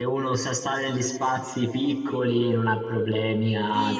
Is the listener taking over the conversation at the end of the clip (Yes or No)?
Yes